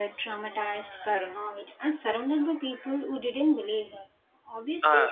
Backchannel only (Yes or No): Yes